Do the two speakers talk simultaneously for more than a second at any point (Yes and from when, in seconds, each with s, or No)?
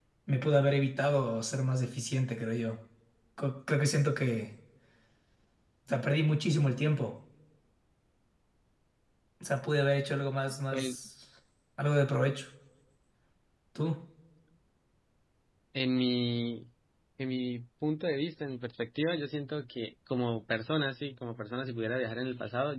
No